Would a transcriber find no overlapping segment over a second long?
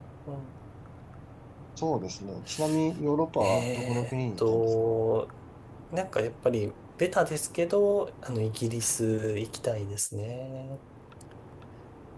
No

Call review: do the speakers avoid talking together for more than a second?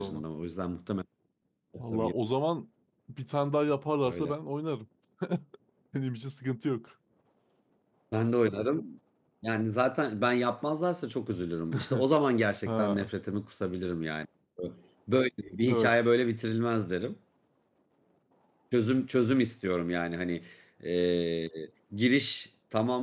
Yes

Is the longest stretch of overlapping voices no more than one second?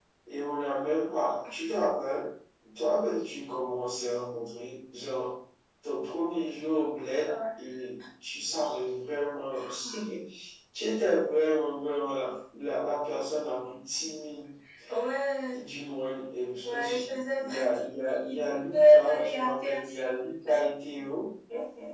No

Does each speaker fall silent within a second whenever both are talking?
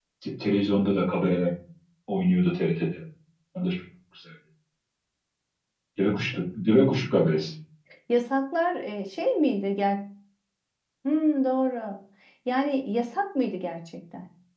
Yes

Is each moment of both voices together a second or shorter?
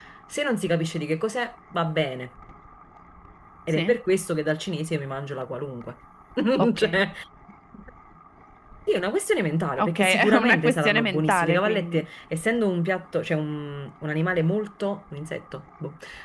No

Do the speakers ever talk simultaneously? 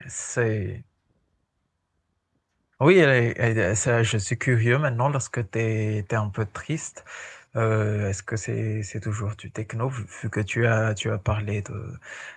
No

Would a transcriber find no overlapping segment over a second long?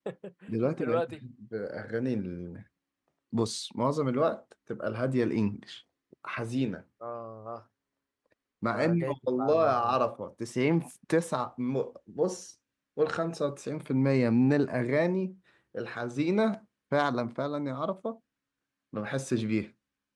No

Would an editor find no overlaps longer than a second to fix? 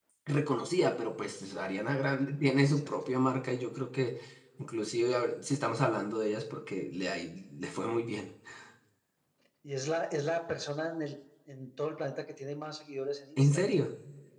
Yes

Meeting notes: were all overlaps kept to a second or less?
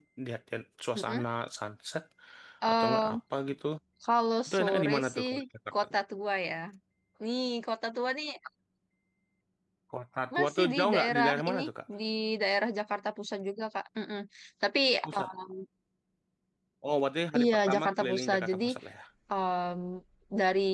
No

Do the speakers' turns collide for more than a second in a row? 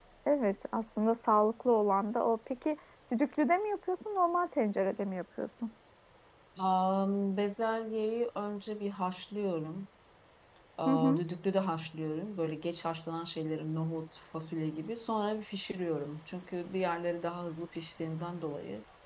No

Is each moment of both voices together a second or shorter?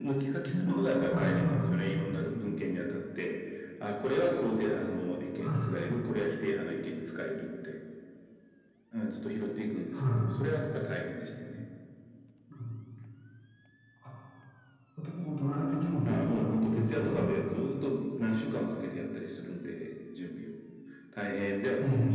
No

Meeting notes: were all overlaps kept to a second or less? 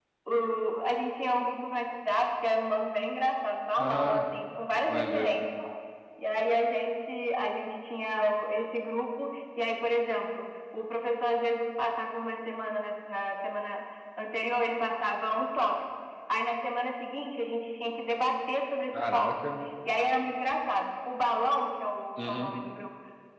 Yes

